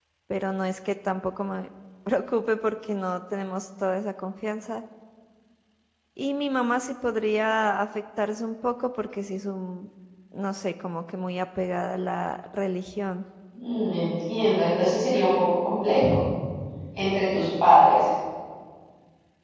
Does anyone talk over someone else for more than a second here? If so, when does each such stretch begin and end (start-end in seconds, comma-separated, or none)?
none